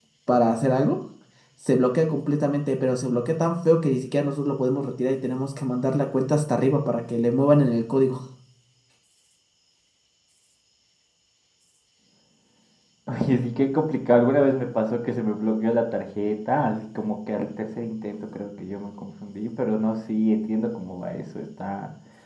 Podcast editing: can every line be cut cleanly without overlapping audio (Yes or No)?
Yes